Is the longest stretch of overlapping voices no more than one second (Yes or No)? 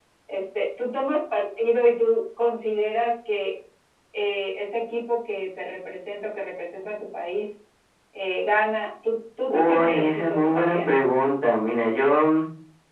No